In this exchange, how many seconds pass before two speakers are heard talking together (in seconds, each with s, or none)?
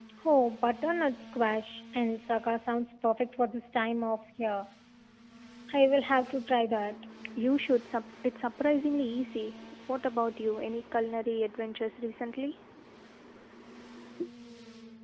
none